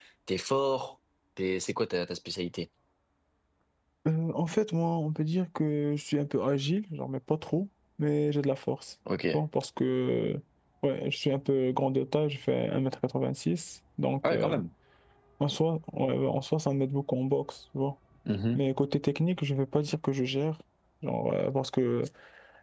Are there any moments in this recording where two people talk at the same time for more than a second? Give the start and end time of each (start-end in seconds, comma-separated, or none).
none